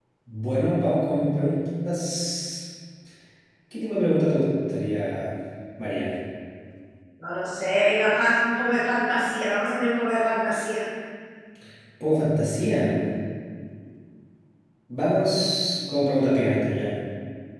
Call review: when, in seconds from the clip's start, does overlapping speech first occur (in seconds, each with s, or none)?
none